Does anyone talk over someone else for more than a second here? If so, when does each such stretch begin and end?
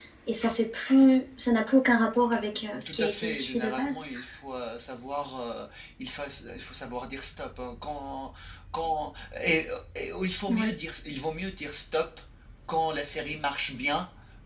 2.9-4.1

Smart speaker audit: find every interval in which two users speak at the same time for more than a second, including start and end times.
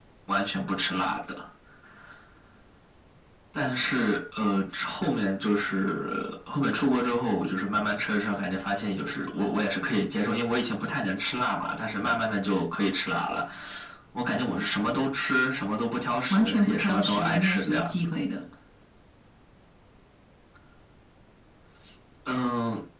16.3-18.1

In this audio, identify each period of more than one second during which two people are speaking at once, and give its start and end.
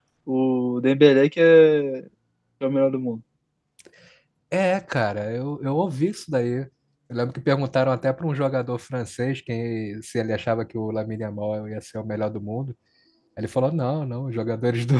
none

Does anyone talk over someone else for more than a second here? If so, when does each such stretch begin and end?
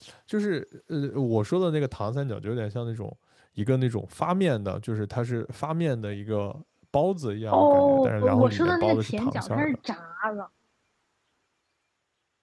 7.5-9.8

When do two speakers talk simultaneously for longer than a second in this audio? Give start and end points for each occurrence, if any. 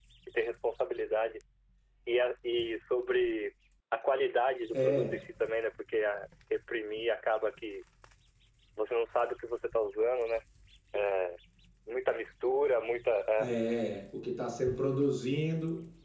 none

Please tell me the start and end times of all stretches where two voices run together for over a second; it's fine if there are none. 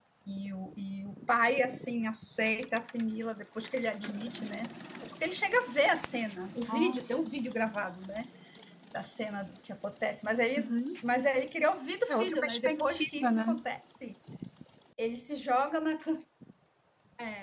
12.1-13.3

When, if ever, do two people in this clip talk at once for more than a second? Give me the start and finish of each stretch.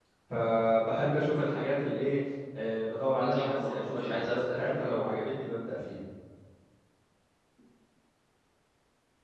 3.1-5.0

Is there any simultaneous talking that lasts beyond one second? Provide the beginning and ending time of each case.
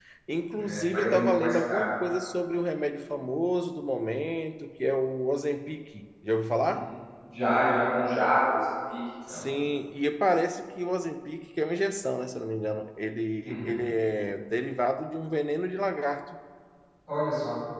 0.6-1.9

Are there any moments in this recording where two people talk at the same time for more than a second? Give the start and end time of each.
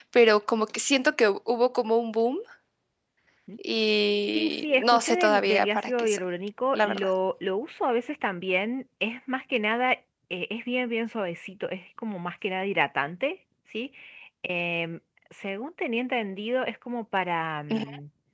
4.3-6.2

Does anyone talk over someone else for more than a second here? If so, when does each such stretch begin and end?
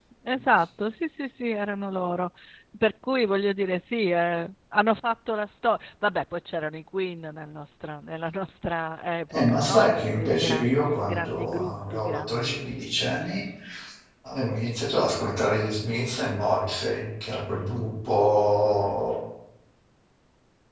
9.3-13.0

